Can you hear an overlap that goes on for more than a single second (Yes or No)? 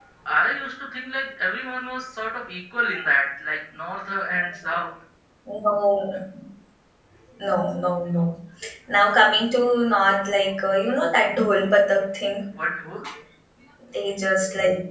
No